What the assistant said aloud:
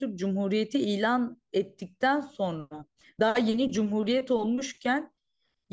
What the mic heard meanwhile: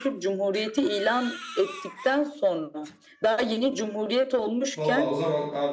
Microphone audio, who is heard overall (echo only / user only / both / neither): both